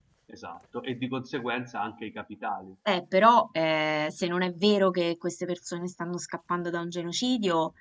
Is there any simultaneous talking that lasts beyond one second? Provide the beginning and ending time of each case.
none

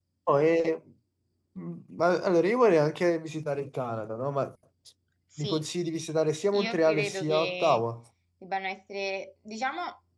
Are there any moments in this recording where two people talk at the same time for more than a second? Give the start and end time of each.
6.5-7.8

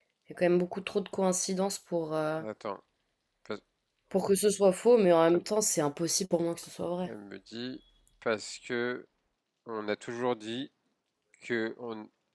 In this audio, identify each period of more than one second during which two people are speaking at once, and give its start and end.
none

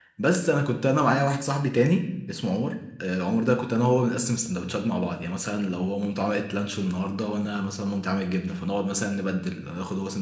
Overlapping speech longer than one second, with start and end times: none

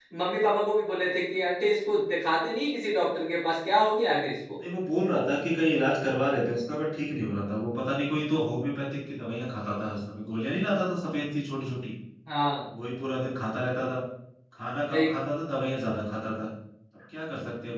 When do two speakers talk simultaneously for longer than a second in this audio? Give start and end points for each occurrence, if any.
none

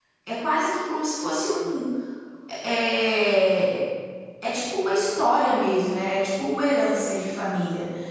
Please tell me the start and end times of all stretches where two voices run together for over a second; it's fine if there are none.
none

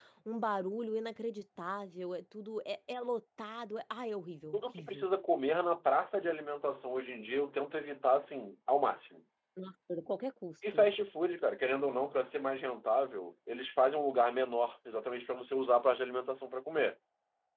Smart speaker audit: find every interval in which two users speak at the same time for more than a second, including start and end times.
none

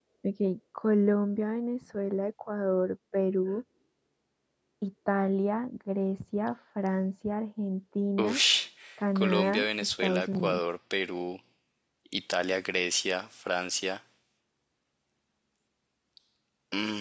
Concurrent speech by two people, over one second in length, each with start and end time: 9.2-10.6

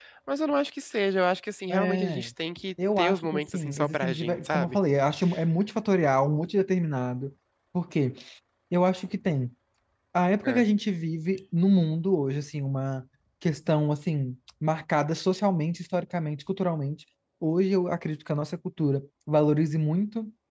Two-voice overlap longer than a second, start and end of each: 3.0-4.8

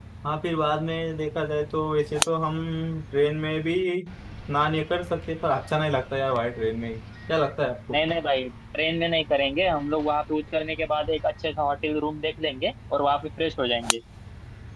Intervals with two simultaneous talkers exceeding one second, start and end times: none

